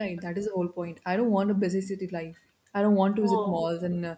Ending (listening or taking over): listening